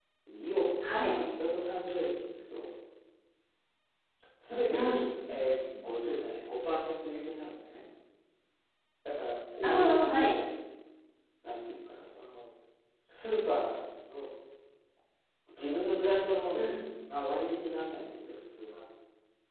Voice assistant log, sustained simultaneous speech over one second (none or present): none